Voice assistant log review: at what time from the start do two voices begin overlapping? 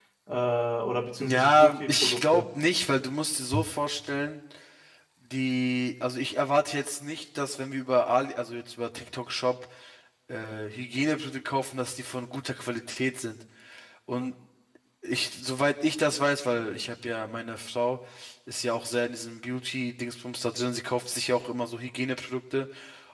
1.2 s

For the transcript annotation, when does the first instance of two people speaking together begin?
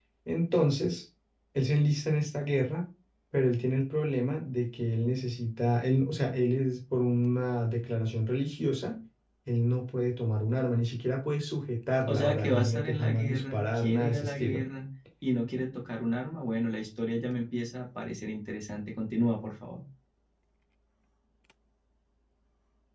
12.1 s

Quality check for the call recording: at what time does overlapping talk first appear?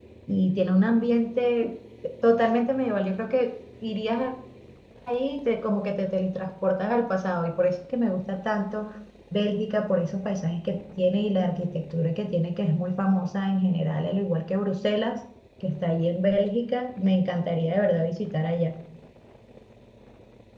none

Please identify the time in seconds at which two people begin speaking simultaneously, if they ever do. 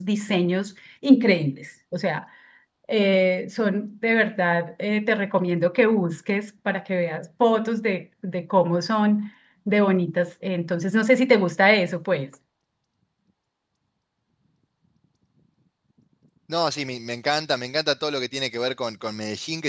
none

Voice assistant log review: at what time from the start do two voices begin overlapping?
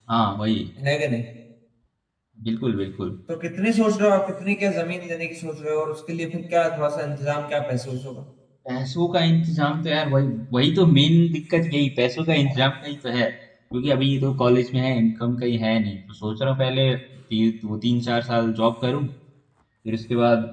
none

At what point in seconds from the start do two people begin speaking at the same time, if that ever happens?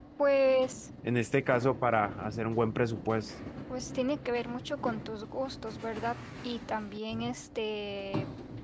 none

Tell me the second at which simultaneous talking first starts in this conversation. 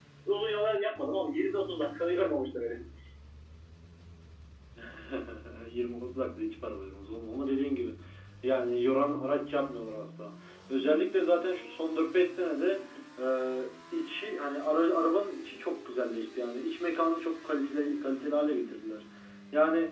none

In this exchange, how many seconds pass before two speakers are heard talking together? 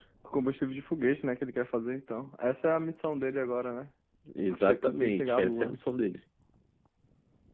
4.6 s

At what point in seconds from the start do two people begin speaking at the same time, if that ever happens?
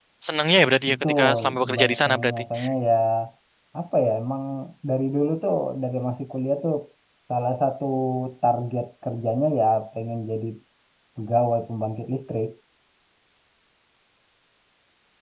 0.9 s

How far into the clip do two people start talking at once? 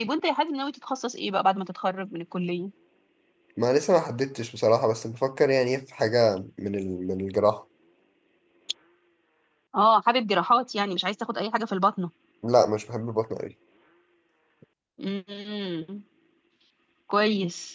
none

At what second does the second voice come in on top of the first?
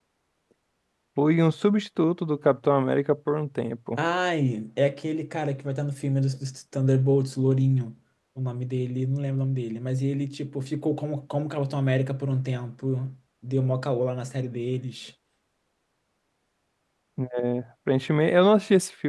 none

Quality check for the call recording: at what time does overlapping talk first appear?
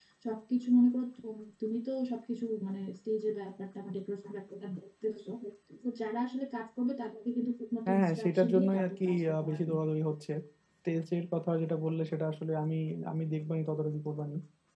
7.9 s

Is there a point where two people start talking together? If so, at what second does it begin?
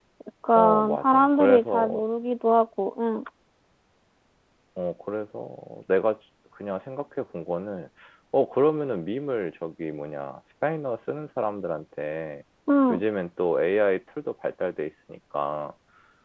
0.6 s

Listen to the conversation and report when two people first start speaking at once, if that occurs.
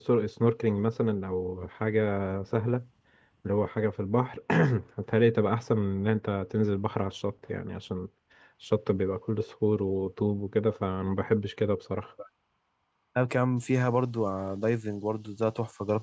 none

